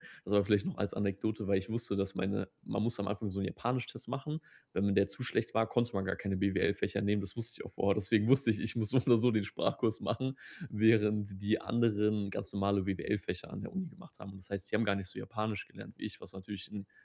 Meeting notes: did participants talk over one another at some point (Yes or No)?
No